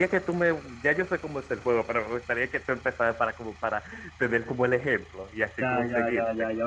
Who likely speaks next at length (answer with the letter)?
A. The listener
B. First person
A